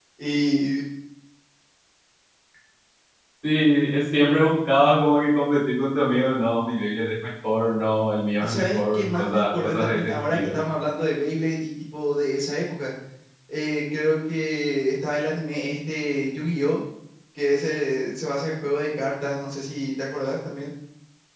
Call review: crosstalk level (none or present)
present